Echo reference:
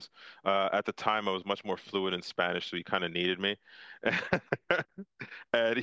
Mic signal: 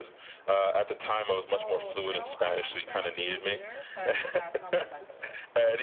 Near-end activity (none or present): present